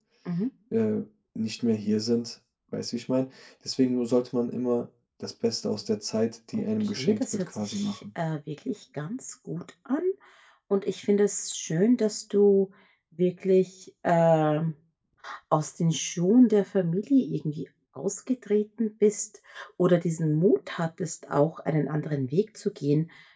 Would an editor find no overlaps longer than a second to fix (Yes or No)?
No